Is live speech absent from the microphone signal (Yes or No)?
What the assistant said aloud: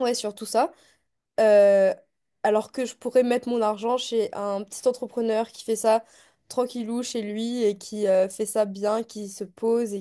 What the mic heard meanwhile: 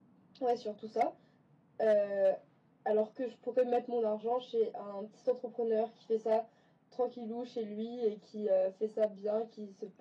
Yes